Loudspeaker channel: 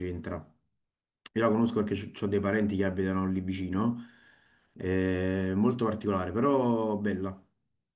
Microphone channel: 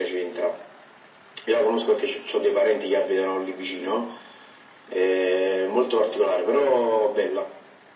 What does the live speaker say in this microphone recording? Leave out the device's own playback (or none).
none